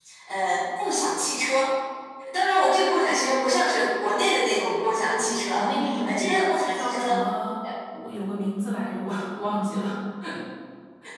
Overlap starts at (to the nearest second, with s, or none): 5 s